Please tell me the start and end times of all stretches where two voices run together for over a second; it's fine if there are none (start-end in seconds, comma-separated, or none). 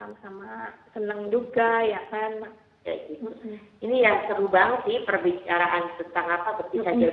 none